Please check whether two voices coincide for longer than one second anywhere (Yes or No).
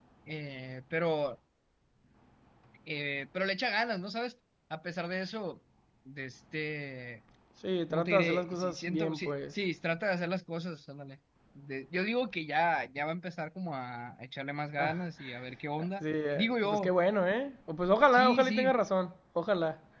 Yes